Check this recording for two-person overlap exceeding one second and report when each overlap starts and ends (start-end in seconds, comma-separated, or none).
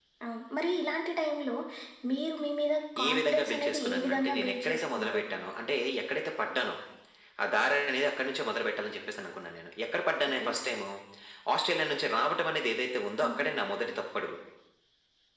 3.0-5.2